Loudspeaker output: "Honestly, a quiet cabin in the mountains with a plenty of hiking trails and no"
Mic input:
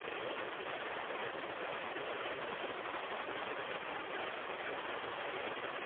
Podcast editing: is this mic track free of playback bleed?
Yes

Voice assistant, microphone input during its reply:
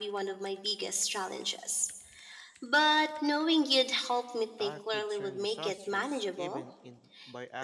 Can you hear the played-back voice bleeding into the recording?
Yes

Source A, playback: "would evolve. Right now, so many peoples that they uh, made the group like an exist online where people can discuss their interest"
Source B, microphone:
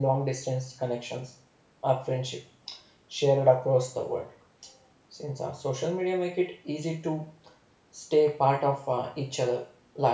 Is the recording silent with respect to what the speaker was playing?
Yes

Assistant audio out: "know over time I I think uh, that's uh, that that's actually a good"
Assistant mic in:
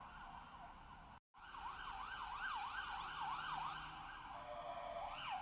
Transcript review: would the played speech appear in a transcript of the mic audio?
No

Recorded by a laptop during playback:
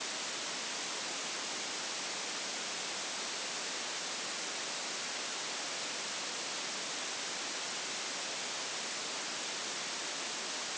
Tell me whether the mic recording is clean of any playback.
Yes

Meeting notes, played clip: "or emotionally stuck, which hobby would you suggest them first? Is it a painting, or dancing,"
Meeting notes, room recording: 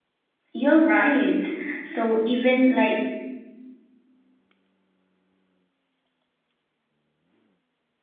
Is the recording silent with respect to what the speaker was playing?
Yes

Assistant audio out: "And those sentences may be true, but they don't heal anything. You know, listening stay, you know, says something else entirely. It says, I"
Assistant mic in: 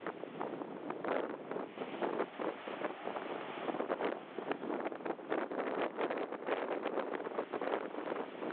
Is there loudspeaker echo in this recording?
No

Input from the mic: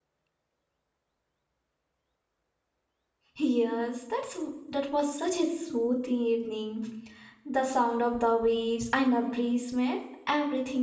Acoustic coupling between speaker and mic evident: No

